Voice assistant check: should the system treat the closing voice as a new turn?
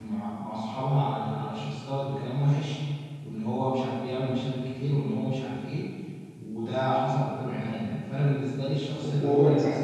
No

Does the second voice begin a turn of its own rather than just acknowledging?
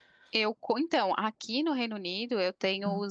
No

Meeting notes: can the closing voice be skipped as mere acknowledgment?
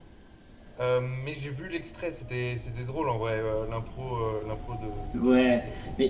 No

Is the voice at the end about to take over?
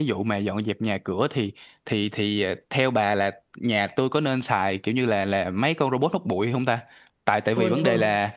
No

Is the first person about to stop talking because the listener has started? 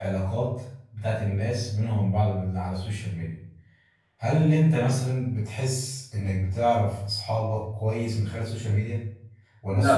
No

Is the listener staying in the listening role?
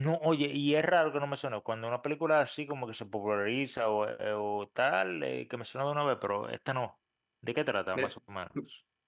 No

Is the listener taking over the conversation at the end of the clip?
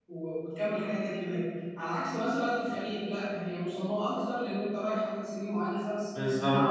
No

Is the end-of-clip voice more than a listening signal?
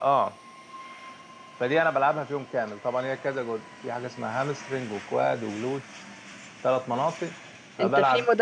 Yes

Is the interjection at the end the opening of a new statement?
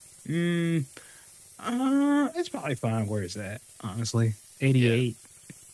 No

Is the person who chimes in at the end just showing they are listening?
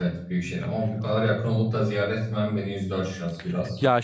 No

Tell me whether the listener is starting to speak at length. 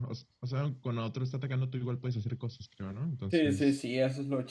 Yes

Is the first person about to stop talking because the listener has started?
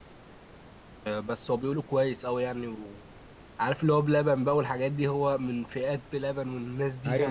Yes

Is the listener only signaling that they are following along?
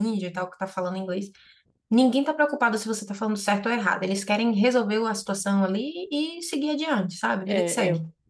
No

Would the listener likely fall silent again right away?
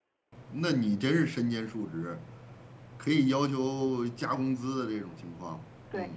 No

